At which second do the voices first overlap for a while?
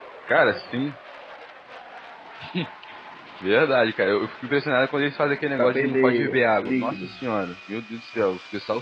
5.6 s

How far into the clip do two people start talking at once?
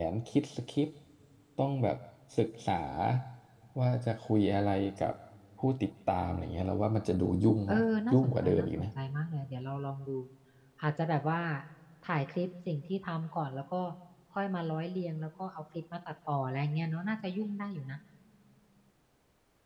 7.7 s

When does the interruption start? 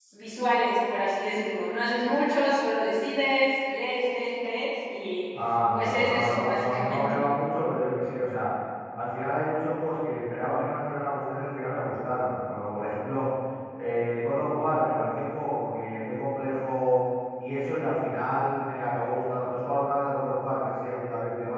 5.7 s

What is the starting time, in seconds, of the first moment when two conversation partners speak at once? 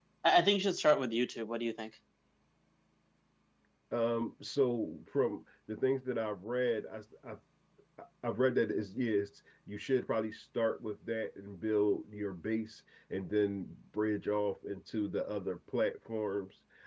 none

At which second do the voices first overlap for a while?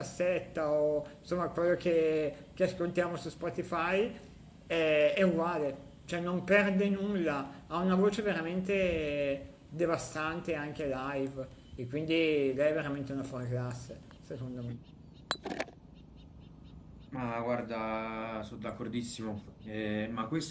none

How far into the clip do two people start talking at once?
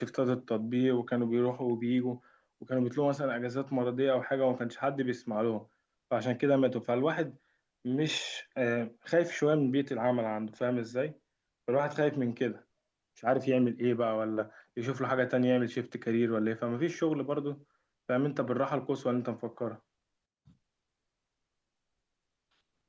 none

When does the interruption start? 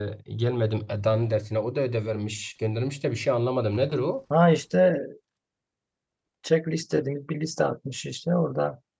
none

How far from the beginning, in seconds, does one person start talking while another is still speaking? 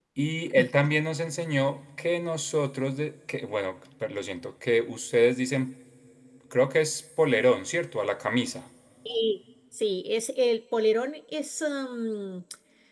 none

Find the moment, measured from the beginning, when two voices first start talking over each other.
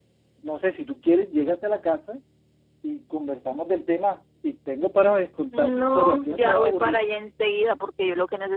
5.5 s

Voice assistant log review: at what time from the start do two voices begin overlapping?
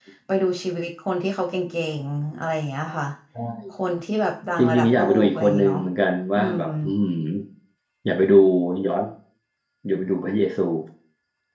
4.6 s

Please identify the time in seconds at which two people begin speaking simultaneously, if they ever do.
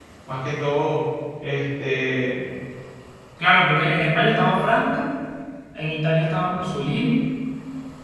none

